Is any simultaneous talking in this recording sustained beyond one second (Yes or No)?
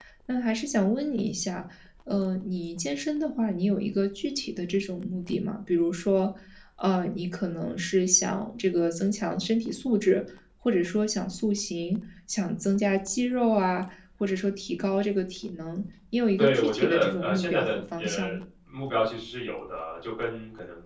Yes